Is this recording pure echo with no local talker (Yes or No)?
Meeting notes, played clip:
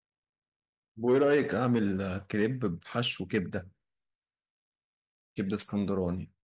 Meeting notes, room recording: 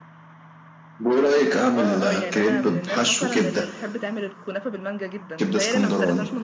No